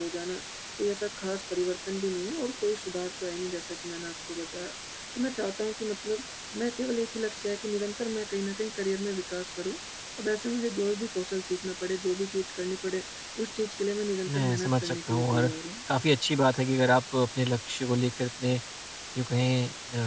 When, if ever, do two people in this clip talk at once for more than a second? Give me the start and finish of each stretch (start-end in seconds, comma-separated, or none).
14.3-15.5